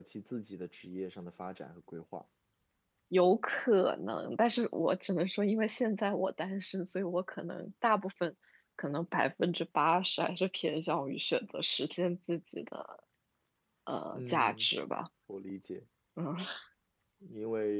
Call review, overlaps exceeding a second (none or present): none